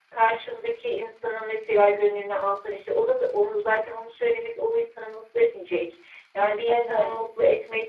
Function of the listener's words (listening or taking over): listening